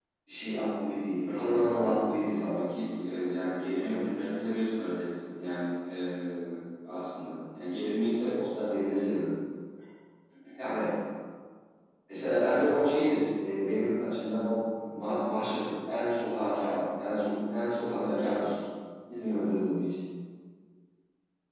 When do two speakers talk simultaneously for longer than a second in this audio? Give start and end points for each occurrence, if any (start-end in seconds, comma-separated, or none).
1.2-2.6